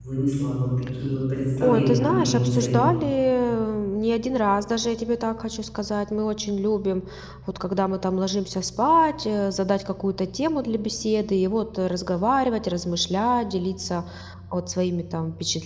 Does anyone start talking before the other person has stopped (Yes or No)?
Yes